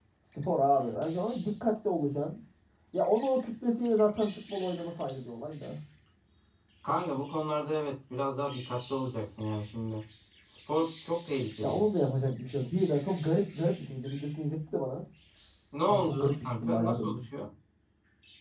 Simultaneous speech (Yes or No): Yes